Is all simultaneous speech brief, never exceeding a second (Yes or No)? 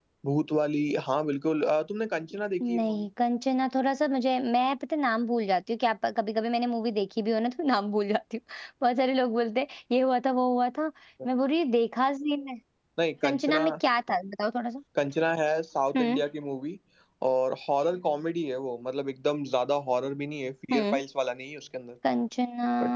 Yes